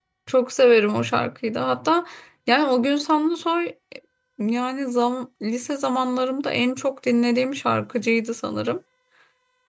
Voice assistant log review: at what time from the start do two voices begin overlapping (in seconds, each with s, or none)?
none